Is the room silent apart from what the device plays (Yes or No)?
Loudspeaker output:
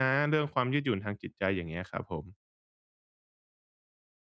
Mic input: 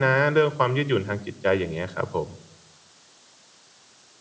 Yes